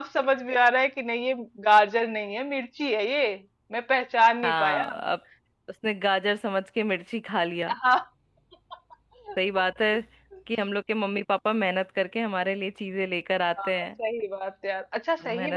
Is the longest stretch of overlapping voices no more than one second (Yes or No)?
Yes